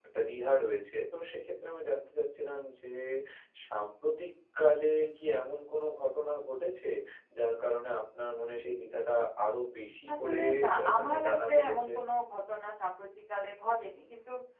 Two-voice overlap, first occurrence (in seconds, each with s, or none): 10.1 s